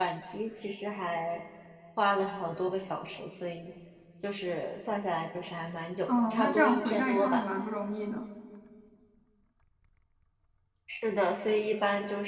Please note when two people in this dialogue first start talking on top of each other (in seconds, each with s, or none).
6.1 s